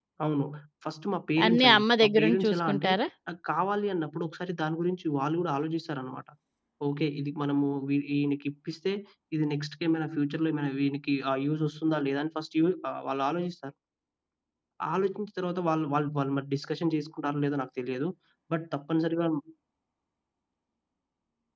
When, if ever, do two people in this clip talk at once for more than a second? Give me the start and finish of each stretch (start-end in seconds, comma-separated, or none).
1.4-2.9